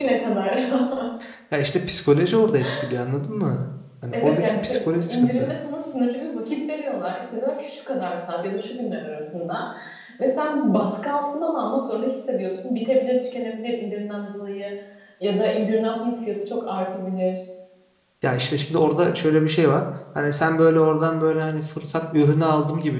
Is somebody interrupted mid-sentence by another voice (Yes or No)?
Yes